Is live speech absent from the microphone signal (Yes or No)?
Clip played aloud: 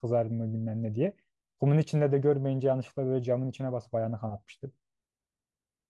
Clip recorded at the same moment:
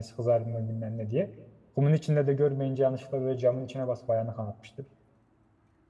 Yes